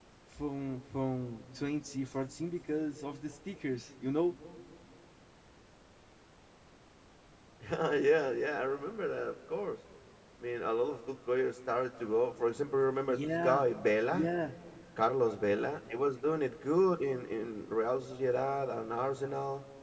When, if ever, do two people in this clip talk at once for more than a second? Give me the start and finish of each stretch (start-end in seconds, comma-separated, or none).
none